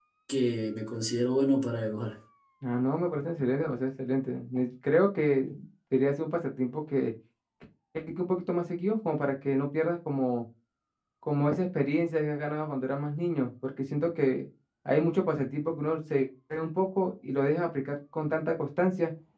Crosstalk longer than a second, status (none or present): none